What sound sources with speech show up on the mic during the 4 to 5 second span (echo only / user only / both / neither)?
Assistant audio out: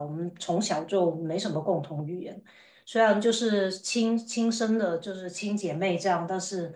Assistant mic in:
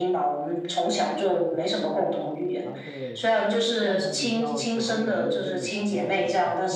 both